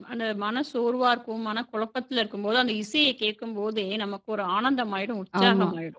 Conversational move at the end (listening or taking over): taking over